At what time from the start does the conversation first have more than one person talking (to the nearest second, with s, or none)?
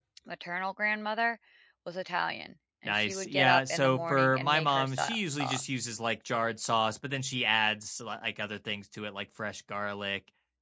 3 s